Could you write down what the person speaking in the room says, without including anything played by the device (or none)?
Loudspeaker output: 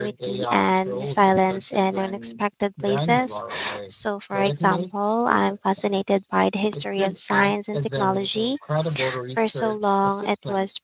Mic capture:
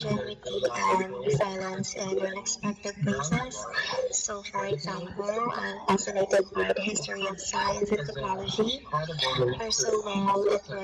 none